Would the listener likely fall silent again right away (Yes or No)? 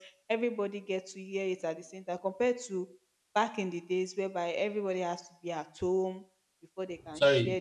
No